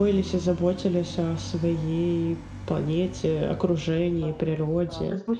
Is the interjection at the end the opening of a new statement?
Yes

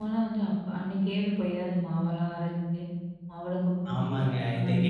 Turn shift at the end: Yes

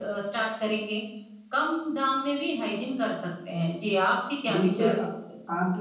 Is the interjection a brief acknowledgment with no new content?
No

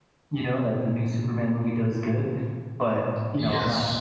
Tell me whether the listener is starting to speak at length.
No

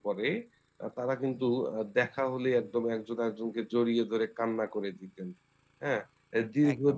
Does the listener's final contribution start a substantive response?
No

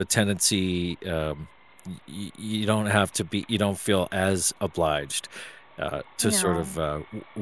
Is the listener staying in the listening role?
Yes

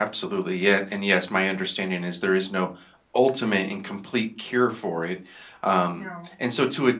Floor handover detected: No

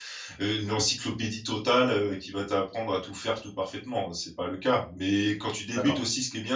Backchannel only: Yes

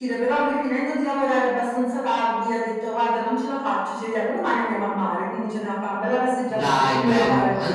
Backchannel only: No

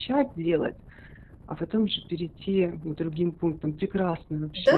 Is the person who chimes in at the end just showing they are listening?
No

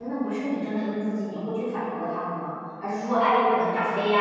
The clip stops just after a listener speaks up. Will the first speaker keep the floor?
Yes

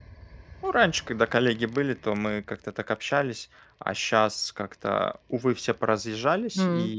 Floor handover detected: No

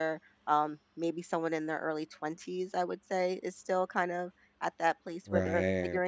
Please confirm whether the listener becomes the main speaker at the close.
No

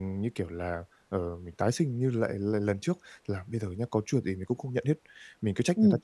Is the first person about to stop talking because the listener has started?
No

